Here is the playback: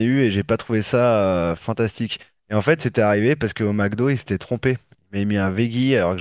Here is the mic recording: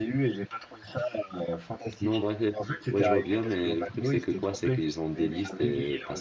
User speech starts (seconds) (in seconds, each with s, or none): 2.0 s